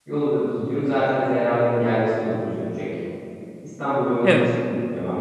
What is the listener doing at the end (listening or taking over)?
listening